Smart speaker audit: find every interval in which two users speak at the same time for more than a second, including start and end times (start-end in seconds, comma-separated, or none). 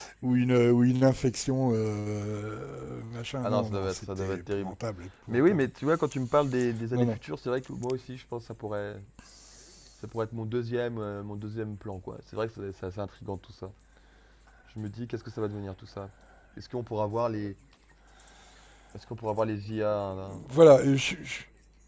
3.4-4.7